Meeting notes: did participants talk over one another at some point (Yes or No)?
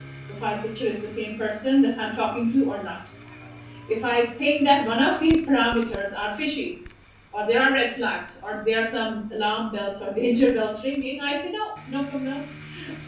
No